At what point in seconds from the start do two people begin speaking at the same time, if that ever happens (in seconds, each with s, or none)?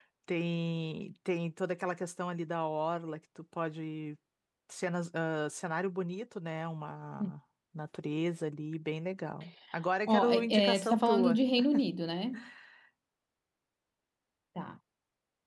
10.1 s